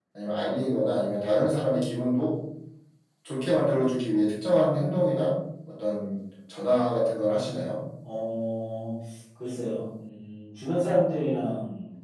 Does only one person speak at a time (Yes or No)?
Yes